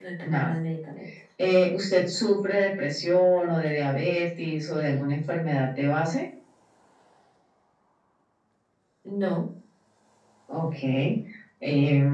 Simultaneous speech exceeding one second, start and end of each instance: none

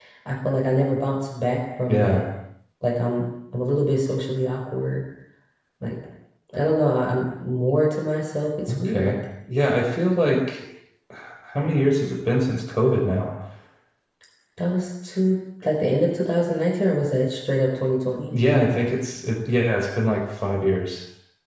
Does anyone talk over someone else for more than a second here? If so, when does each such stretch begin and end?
none

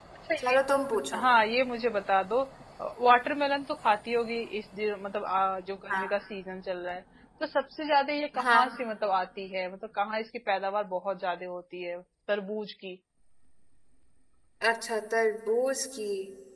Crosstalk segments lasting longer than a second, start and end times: none

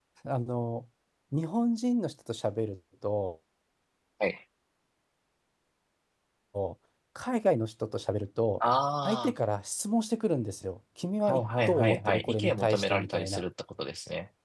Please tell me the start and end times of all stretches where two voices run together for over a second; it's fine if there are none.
11.2-13.4

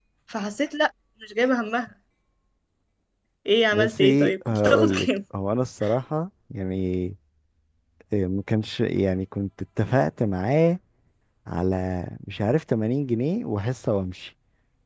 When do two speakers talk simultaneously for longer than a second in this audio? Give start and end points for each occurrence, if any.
3.7-5.1

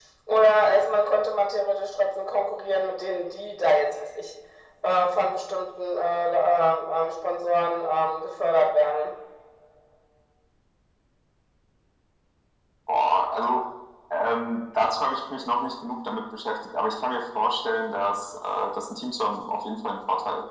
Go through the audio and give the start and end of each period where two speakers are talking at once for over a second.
none

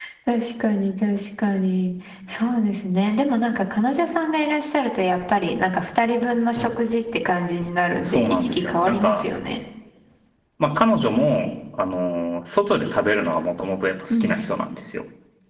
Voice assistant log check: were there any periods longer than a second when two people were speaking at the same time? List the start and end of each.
8.0-9.2

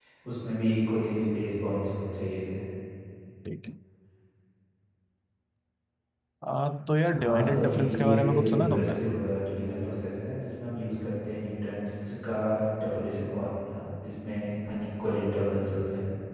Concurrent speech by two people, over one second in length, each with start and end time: 7.2-8.9

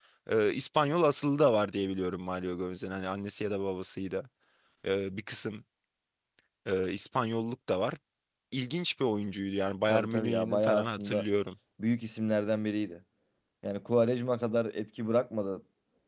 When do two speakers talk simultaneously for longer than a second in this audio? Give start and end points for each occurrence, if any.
9.9-11.2

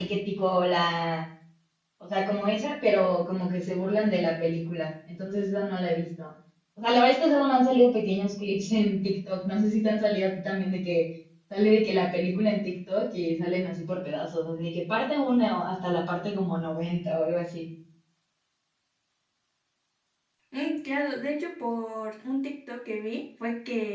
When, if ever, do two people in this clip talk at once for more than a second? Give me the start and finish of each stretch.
none

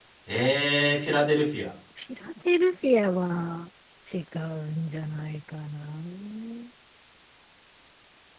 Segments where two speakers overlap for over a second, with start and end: none

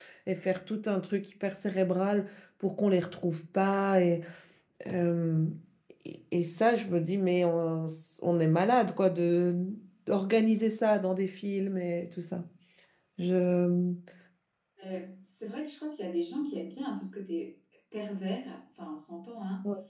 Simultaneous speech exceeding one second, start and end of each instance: none

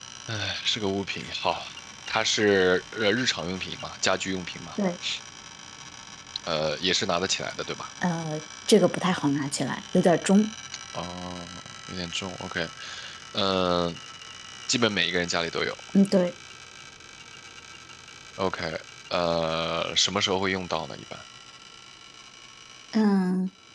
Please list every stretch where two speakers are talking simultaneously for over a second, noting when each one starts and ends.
none

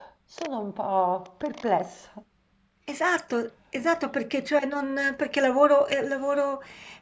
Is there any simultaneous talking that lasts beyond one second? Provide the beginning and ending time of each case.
none

